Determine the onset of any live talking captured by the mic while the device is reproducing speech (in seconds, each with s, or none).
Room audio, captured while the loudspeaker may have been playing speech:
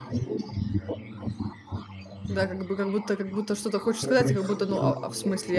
2.3 s